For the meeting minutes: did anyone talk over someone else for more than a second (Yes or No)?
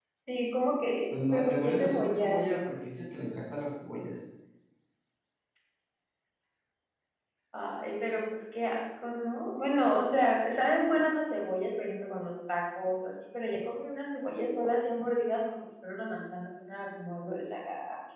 Yes